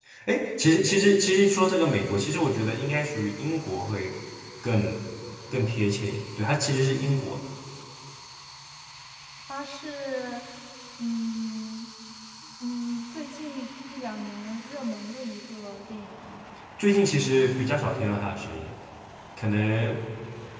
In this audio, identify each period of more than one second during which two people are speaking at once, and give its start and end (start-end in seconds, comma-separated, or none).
none